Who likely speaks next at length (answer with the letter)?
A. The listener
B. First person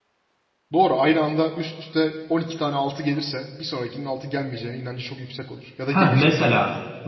A